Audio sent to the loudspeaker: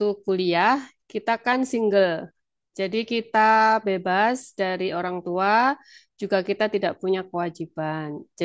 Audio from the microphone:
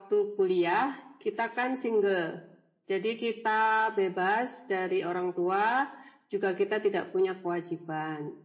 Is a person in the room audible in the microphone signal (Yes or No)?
No